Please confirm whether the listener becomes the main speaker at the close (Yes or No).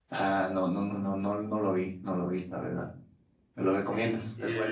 Yes